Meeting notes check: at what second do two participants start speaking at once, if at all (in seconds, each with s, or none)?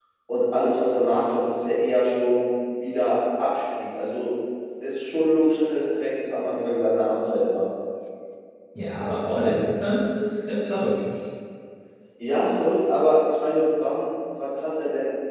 none